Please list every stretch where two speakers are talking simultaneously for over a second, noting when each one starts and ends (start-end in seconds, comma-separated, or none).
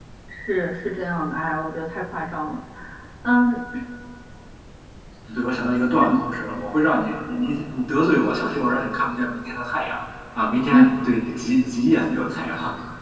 none